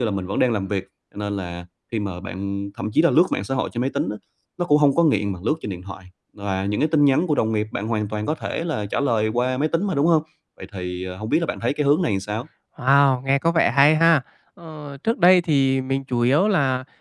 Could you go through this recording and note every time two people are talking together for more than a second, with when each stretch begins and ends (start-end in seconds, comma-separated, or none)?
none